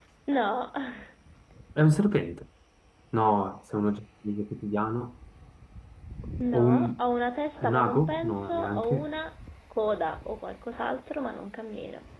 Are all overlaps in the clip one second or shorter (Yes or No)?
No